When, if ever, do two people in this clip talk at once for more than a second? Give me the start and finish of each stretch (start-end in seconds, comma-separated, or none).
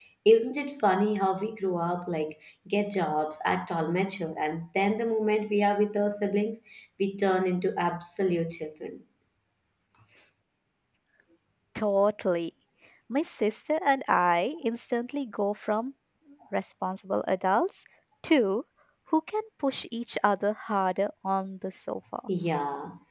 none